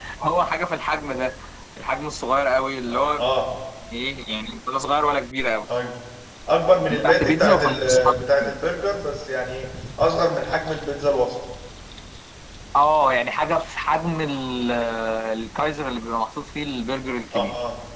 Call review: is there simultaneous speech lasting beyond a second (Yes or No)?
Yes